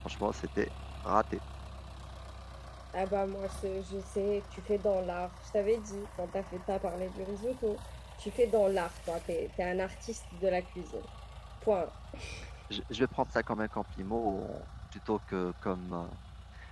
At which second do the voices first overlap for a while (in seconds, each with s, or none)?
none